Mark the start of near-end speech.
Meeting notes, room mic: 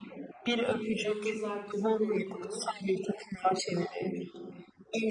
1.0 s

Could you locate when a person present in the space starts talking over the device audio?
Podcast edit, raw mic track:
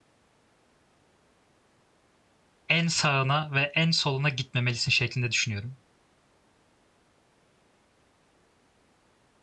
2.7 s

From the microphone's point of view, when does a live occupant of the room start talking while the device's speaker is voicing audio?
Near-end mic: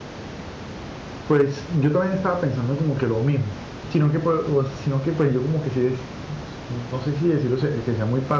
1.2 s

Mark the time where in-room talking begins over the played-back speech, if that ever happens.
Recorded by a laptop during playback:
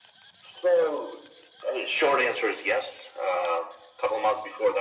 none

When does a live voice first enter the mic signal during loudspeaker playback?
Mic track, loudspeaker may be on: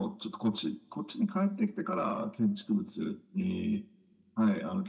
none

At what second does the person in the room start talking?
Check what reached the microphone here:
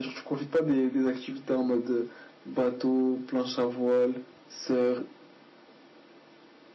none

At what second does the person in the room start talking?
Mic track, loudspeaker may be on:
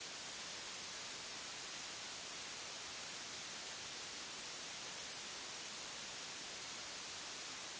none

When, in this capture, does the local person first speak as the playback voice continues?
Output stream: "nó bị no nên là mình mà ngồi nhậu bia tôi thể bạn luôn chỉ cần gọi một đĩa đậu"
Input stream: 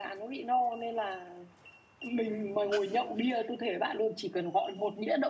none

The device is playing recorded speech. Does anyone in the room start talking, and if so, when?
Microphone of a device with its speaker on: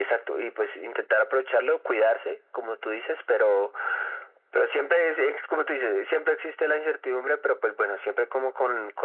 none

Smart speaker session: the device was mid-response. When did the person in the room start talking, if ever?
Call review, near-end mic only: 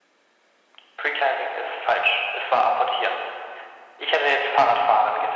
none

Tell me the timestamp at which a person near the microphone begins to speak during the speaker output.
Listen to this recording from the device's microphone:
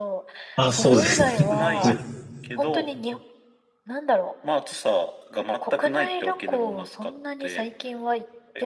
0.6 s

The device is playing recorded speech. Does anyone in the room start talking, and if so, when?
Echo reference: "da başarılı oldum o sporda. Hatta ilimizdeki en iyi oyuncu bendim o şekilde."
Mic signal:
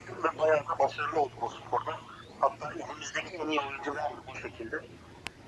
none

